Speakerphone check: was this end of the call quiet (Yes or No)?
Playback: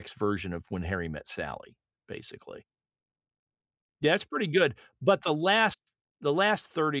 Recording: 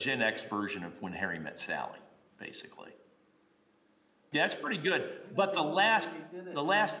No